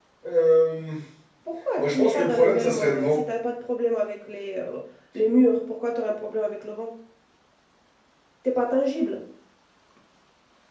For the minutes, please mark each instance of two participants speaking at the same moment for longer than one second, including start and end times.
1.8-3.2

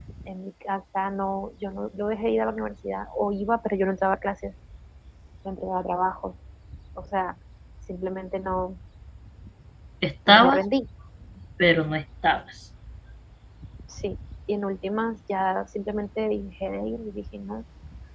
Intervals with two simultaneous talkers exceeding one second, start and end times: none

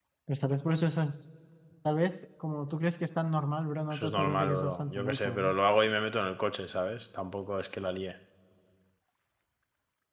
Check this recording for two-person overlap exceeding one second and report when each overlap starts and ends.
3.9-5.5

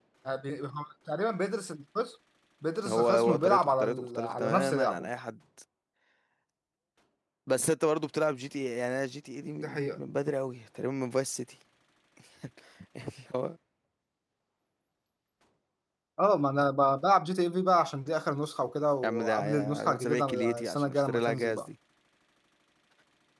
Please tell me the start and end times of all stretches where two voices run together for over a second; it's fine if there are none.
2.9-5.1, 19.0-21.7

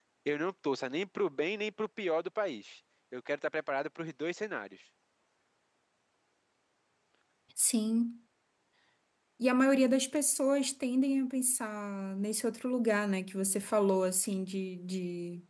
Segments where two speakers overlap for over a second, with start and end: none

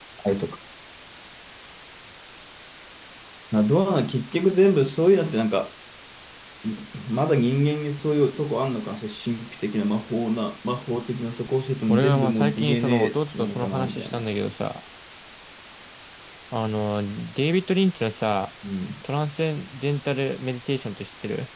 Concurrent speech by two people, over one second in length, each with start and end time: 11.9-14.2

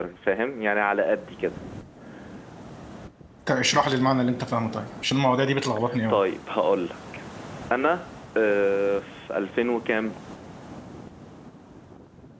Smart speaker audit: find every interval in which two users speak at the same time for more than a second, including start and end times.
none

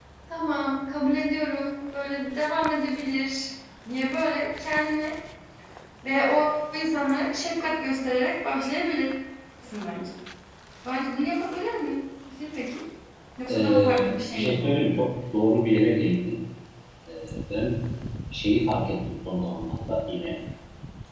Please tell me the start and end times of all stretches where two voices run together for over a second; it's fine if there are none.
13.5-14.8

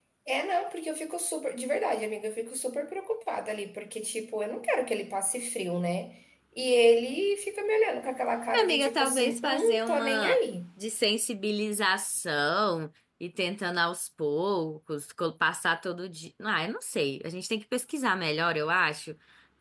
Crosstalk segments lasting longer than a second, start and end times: 8.6-10.4

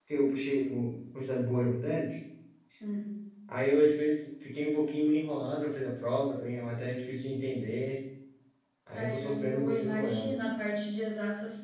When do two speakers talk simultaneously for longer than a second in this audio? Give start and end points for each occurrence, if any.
8.9-10.3

